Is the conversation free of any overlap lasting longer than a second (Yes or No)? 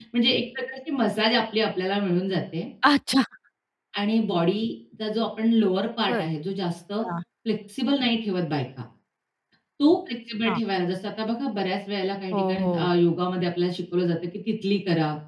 Yes